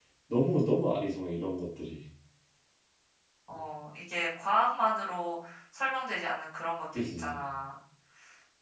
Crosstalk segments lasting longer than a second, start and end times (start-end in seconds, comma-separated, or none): none